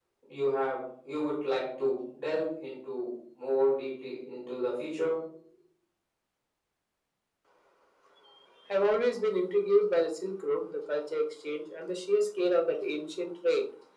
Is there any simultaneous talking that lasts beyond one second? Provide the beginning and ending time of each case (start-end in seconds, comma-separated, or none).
none